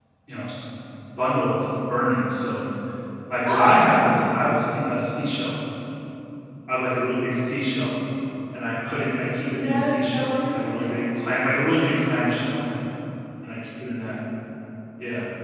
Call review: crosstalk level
present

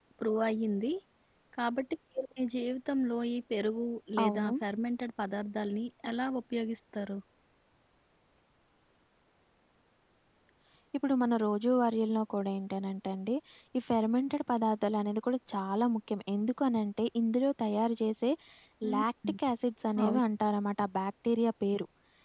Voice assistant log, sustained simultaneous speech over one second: none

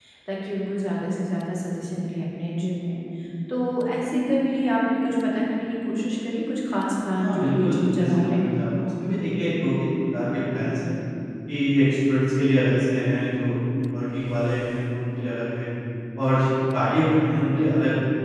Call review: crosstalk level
present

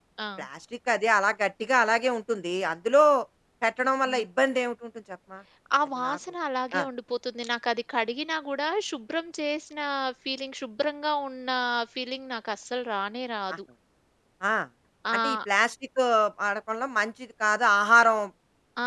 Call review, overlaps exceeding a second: none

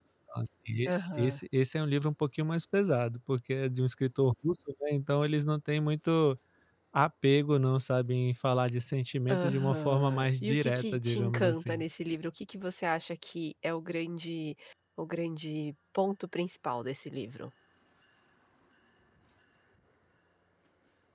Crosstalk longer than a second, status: present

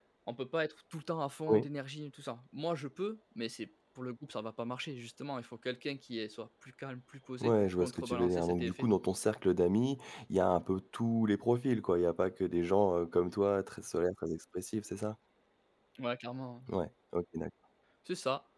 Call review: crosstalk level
present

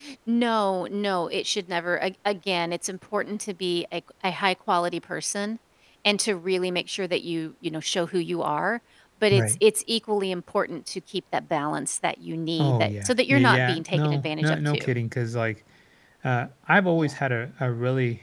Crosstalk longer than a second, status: present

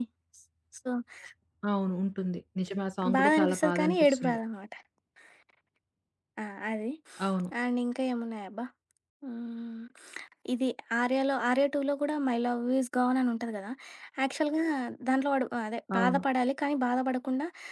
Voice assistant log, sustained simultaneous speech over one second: present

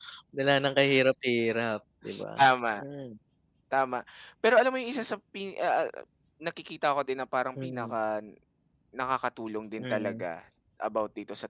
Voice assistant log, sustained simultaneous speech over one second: none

